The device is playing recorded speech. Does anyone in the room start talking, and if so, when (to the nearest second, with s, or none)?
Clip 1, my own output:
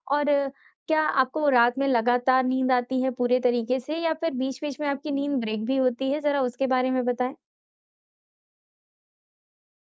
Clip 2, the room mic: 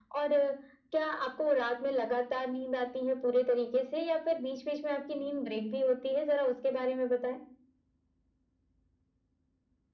none